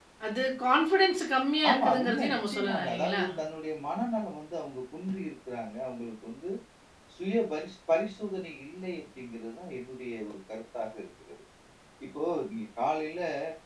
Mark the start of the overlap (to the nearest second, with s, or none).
2 s